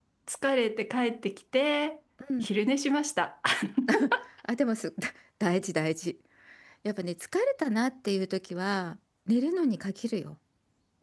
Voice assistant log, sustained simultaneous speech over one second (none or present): none